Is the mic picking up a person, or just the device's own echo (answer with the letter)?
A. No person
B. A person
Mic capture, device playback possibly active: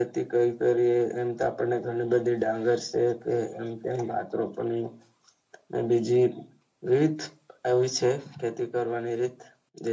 A